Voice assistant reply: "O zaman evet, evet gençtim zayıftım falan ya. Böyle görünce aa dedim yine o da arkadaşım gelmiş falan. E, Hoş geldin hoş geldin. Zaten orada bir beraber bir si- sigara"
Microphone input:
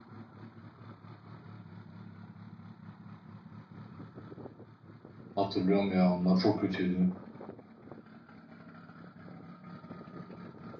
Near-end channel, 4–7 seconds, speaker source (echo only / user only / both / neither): user only